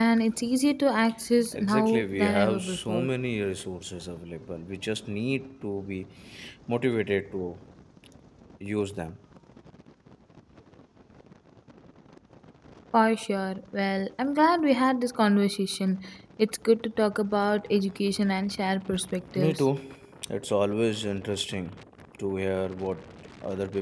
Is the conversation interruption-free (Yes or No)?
No